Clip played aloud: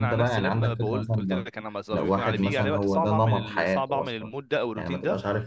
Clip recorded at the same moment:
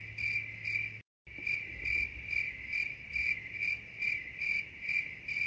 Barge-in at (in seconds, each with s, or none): none